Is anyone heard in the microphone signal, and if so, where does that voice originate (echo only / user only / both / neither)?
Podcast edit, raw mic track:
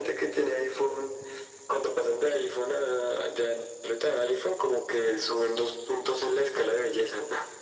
echo only